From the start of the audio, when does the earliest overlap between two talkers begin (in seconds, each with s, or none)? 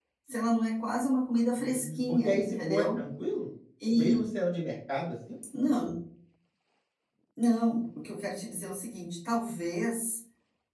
1.5 s